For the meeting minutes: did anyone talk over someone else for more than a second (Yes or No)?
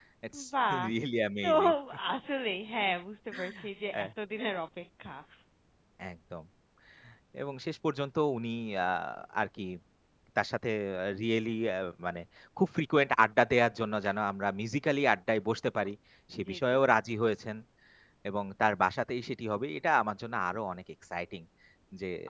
No